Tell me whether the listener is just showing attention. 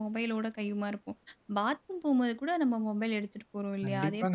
No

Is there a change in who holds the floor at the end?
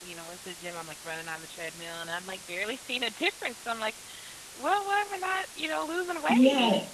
Yes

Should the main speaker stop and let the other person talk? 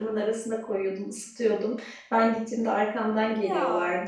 No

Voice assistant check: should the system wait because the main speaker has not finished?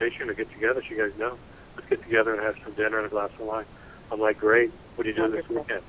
Yes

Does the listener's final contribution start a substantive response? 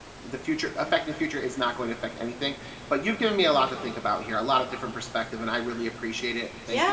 Yes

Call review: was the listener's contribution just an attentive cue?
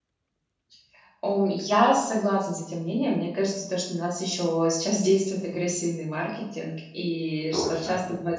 Yes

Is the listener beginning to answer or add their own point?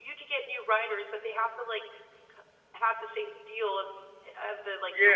Yes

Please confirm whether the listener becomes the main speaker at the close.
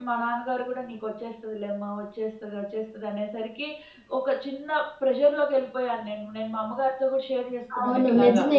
Yes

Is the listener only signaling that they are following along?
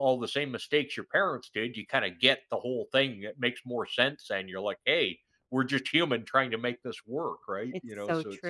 No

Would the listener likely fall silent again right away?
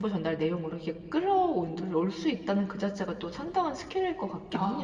No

